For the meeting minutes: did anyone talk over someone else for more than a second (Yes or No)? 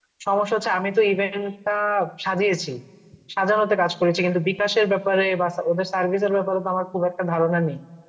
No